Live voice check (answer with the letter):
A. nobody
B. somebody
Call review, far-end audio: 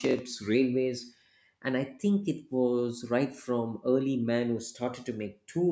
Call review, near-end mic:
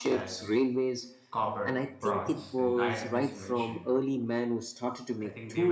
B